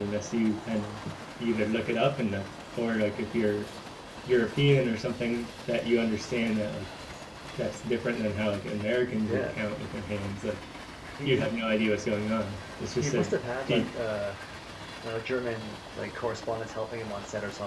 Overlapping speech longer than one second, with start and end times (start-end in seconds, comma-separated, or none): none